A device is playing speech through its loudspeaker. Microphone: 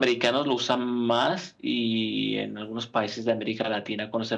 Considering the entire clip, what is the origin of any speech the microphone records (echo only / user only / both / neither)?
echo only